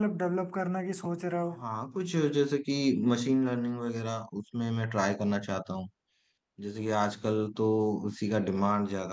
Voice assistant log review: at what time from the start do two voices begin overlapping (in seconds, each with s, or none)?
none